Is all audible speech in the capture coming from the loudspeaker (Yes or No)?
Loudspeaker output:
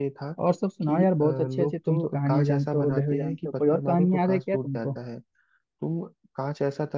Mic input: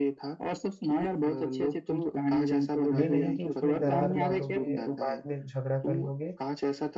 No